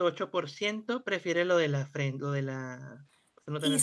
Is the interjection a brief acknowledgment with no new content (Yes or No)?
No